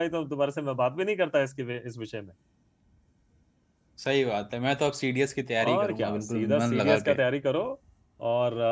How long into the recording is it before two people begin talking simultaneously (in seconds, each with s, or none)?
5.6 s